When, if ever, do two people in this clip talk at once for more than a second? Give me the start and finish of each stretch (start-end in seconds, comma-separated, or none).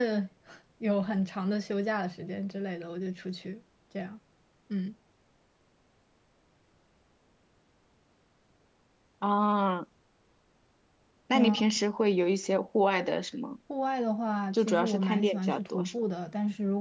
14.5-15.9